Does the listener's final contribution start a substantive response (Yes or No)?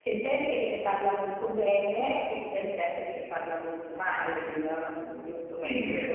Yes